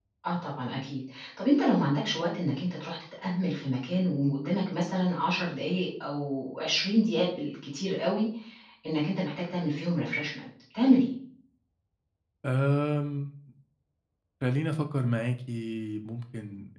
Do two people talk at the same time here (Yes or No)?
No